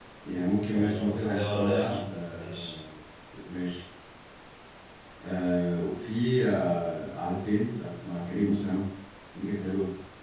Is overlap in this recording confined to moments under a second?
No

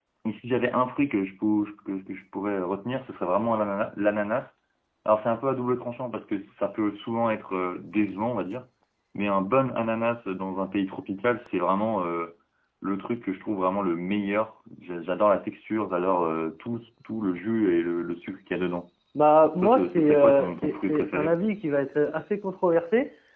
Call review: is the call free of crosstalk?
No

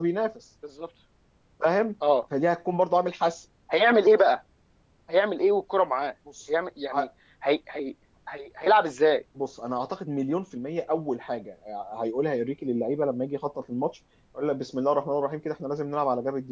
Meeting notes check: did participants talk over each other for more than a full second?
No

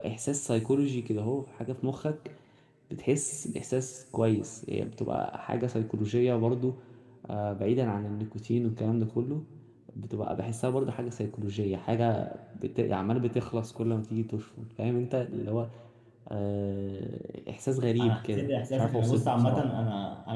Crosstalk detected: Yes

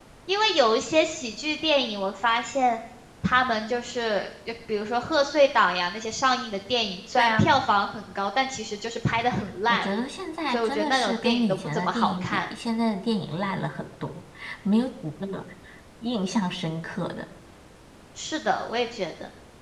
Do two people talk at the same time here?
Yes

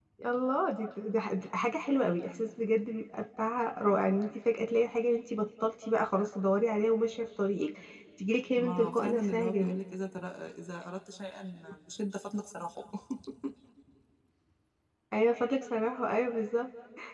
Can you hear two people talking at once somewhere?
Yes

